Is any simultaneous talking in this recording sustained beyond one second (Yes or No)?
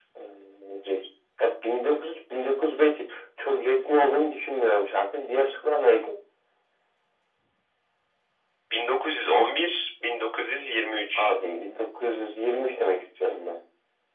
No